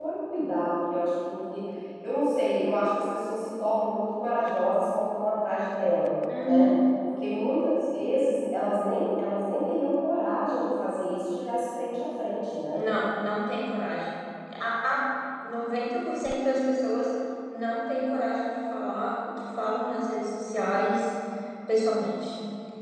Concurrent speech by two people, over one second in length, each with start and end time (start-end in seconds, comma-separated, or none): none